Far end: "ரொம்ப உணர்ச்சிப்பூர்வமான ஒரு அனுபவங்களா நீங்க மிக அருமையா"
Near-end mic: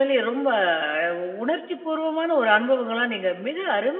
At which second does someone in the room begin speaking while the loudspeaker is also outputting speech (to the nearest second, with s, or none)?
none